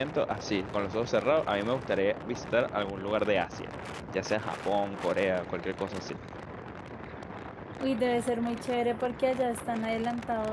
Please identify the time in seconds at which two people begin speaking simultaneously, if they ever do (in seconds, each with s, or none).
none